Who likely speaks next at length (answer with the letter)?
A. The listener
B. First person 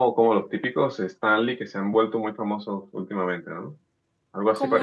A